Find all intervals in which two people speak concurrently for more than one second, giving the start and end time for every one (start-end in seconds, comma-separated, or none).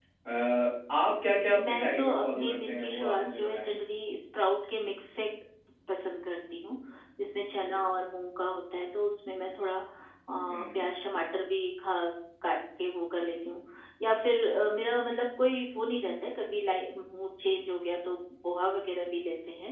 1.6-3.7